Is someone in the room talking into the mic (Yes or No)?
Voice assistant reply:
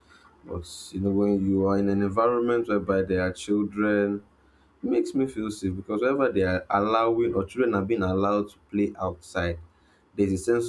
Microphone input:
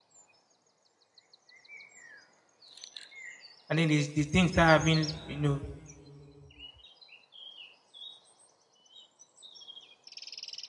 Yes